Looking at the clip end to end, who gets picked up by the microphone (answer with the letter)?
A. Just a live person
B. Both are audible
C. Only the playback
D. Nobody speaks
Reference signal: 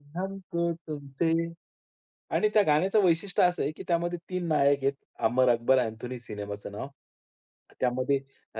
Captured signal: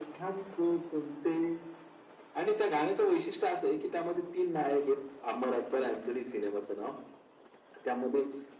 C